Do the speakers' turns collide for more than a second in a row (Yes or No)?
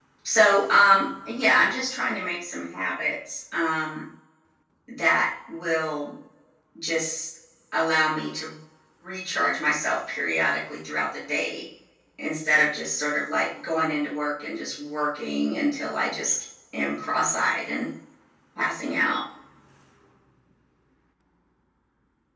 No